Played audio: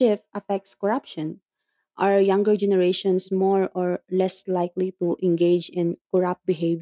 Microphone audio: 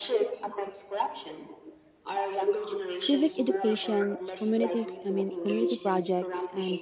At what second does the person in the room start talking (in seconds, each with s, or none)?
3.0 s